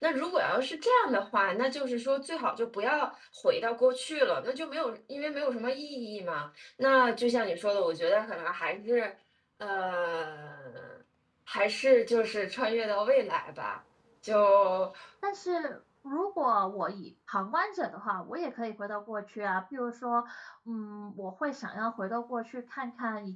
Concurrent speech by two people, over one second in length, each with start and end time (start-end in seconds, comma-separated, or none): none